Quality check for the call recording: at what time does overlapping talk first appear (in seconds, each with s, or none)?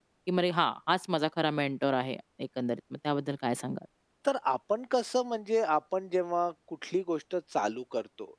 none